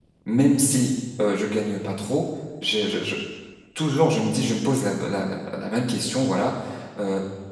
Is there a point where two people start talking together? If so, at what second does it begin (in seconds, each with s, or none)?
none